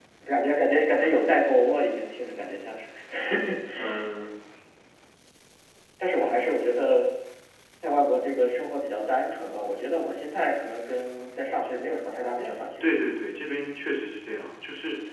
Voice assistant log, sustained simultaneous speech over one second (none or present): none